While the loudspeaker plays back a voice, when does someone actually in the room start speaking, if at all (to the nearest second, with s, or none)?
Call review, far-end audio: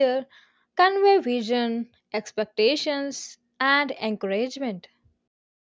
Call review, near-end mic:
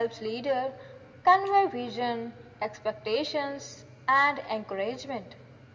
none